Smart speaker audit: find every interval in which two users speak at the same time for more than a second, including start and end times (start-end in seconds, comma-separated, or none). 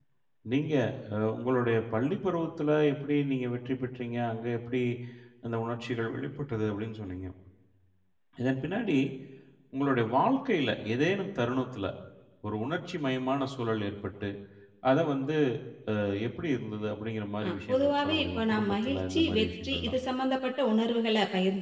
17.4-20.0